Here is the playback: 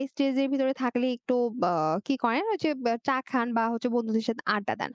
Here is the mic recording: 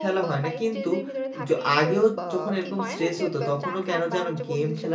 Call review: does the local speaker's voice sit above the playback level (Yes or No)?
Yes